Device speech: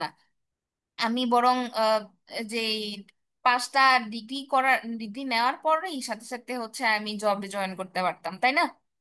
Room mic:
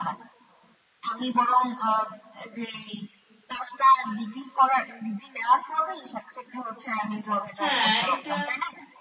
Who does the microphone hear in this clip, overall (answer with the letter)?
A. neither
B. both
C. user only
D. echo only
B